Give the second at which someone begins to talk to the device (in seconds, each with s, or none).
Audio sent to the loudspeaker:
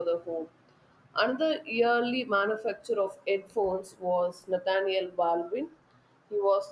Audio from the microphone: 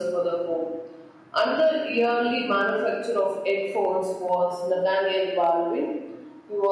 none